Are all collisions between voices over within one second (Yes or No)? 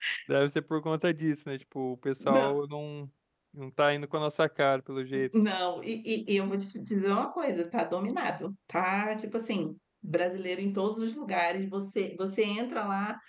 Yes